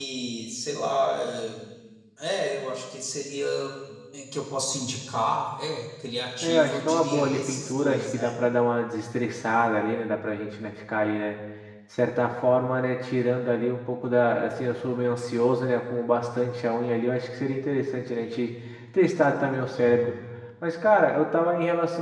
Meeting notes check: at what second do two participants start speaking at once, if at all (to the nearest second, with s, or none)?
6 s